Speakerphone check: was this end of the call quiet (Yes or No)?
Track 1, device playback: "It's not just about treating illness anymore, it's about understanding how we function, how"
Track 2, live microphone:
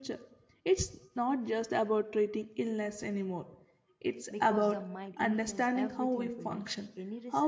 No